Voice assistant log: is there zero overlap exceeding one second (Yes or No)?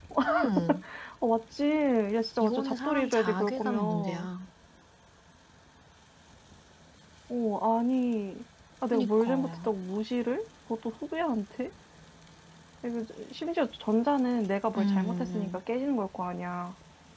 No